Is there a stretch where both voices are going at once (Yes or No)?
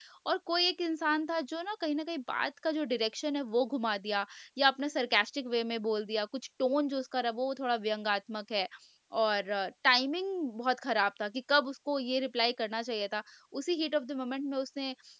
No